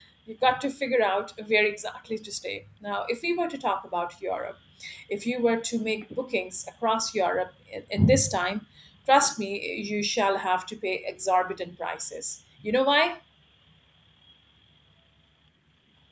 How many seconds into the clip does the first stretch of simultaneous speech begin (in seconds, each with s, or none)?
none